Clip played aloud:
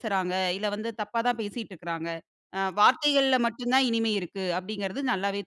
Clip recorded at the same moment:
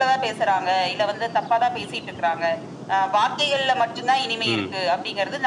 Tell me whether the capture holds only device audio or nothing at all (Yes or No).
No